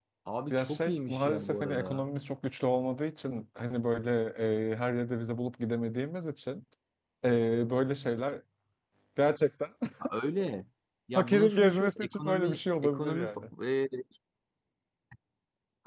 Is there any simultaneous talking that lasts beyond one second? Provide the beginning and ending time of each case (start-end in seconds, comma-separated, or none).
0.5-2.0, 11.2-13.3